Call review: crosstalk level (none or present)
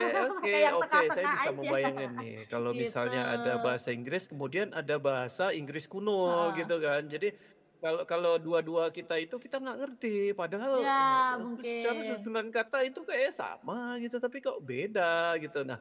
present